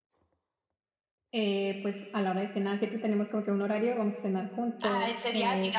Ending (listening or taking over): taking over